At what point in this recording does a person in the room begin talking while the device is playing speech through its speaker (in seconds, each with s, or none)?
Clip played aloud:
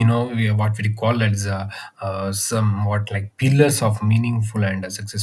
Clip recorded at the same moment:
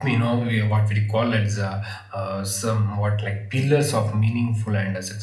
none